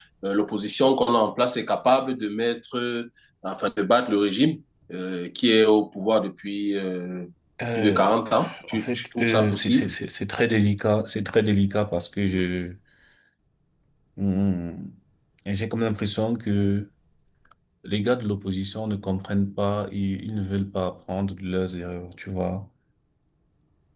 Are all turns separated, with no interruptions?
No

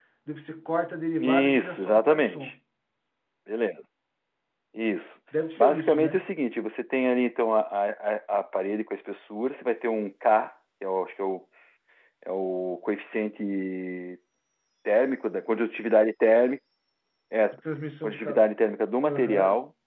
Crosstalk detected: Yes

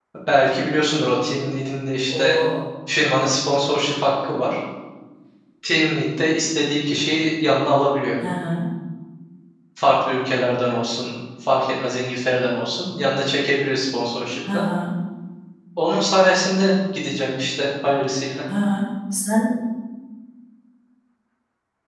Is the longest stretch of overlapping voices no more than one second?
Yes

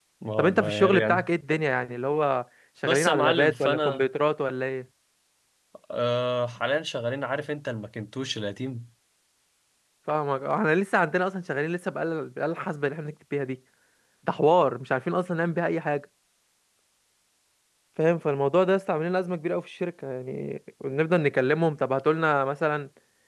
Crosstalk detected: Yes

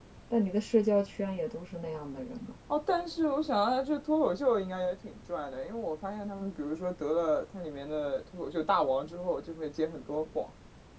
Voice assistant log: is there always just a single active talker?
Yes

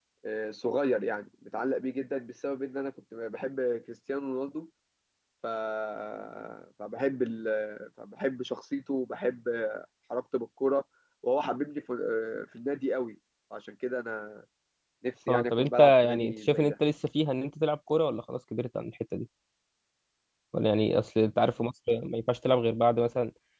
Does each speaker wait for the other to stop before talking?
No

